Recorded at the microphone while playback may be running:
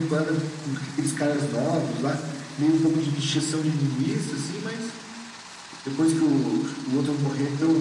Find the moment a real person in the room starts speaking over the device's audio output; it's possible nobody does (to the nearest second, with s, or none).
none